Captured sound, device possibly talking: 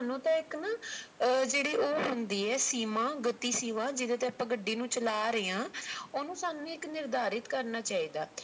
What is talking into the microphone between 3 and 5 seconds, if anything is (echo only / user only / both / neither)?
echo only